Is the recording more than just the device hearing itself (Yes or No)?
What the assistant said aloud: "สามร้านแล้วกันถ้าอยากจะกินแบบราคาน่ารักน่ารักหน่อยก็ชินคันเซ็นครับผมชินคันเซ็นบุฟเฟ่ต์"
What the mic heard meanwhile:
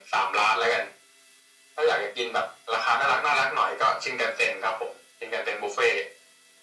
No